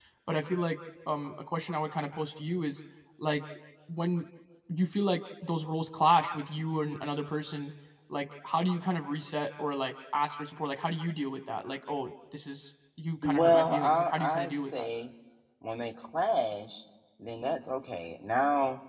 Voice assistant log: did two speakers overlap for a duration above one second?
Yes, from 13.2 s

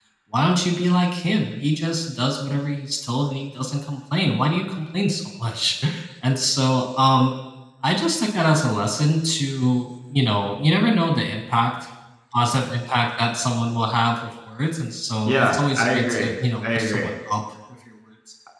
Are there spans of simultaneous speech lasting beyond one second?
Yes, from 15.2 s

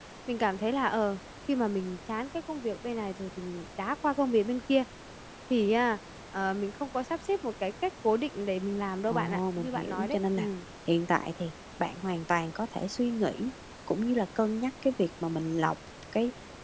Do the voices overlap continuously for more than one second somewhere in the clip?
Yes, from 9.1 s

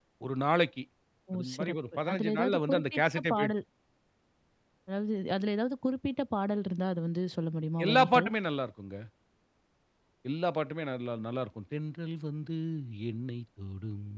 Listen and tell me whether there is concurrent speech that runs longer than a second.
Yes, from 1.3 s

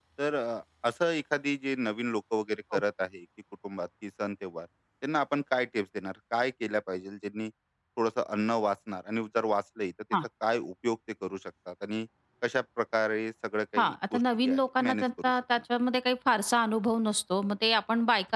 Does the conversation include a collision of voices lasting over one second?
Yes, from 13.8 s

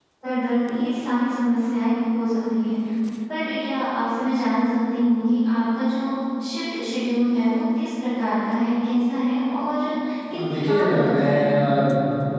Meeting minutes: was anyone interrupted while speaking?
Yes, from 10.3 s

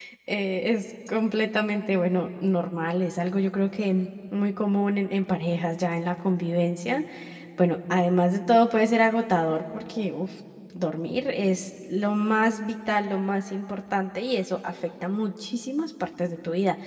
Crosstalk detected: No

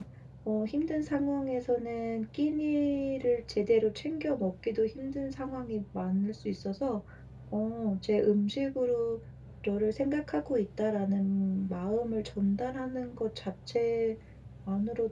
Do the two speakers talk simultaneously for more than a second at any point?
No

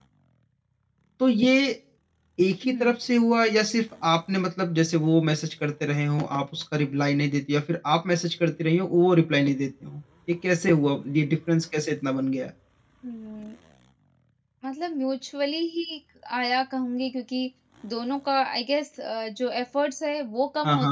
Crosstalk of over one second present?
No

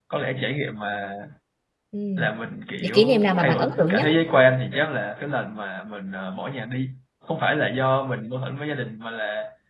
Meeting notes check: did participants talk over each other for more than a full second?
Yes, from 2.8 s

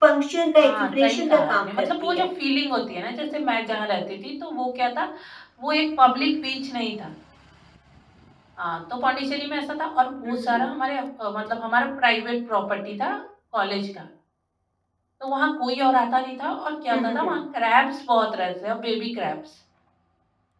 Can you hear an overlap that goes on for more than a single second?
Yes, from 0.6 s

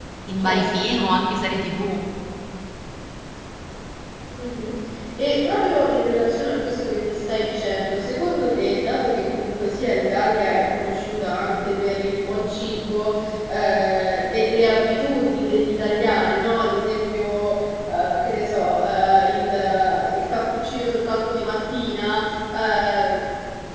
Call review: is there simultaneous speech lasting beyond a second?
No

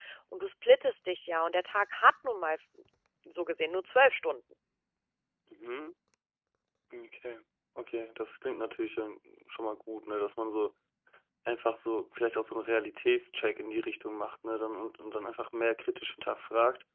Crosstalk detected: No

